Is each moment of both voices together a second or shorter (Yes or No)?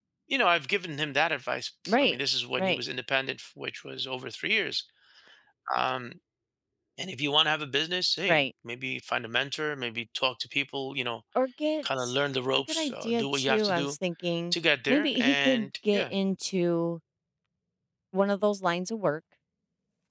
No